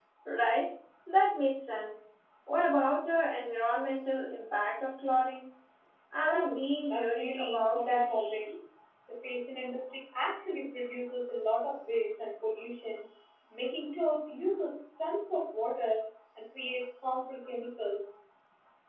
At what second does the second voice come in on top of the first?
6.2 s

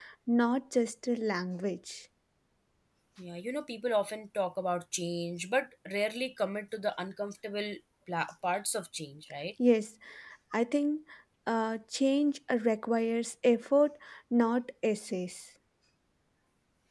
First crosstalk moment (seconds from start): none

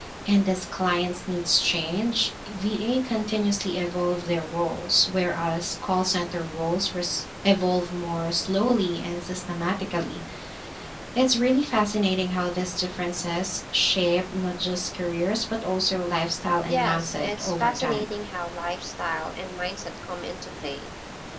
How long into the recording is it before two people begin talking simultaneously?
16.7 s

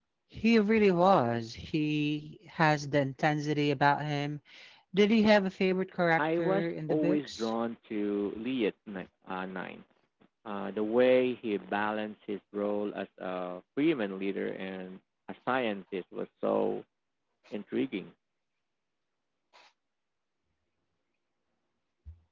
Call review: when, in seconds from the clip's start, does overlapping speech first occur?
6.2 s

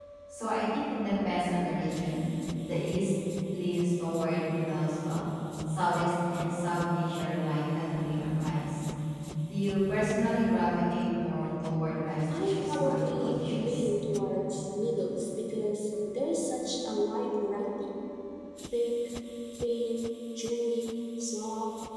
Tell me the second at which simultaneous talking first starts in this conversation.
12.3 s

